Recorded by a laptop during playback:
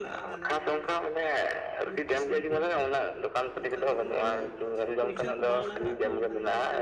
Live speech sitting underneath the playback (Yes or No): Yes